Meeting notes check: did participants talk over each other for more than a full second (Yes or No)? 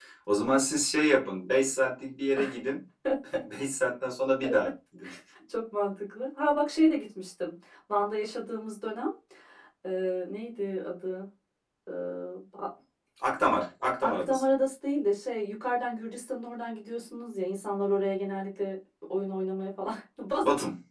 No